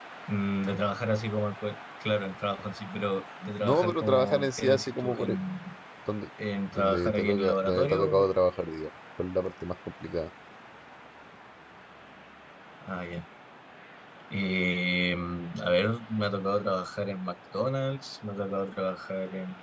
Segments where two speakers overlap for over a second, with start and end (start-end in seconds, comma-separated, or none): 3.6-5.4, 6.7-8.3